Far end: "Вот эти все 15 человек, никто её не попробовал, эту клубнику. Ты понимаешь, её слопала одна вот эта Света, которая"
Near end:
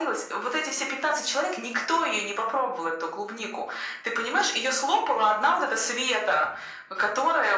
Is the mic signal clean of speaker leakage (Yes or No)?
No